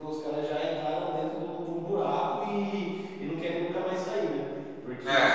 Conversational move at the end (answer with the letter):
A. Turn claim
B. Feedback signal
B